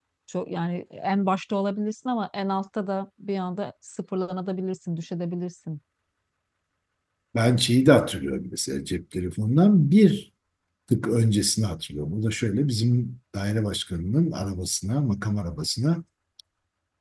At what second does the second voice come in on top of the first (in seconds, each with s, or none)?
none